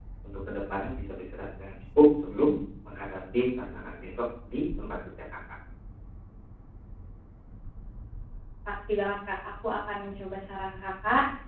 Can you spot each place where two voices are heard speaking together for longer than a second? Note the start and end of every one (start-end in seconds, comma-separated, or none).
none